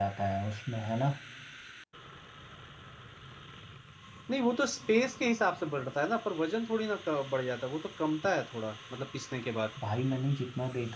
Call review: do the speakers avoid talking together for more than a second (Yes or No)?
Yes